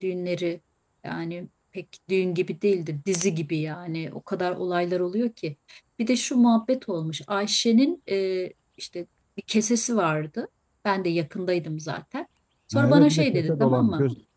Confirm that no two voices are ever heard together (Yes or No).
No